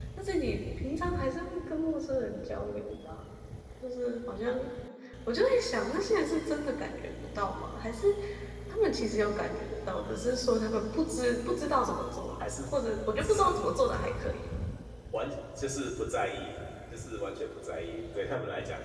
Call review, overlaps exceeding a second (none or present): none